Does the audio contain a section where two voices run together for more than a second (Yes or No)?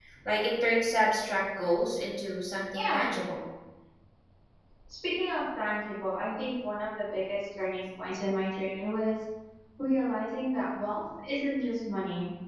No